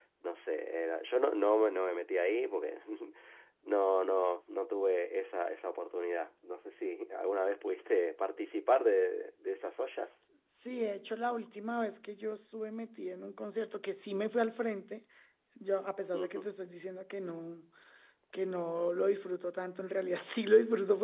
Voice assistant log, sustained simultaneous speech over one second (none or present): none